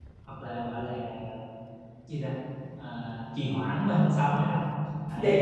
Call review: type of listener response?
listening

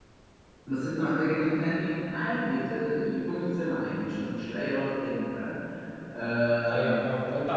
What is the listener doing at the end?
taking over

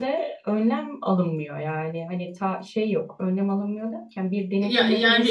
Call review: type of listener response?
listening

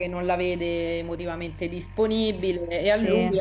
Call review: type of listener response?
listening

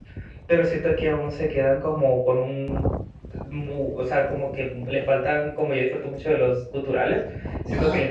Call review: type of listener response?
listening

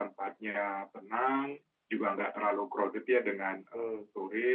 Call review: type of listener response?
listening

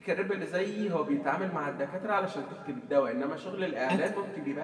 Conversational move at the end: listening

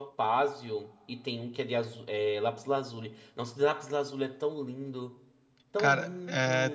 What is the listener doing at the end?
taking over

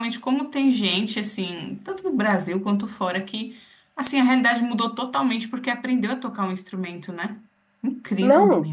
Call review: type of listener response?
taking over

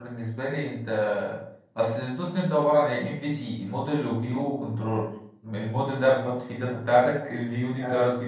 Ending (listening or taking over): listening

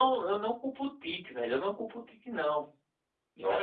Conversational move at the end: listening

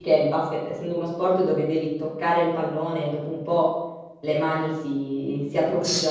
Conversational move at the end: taking over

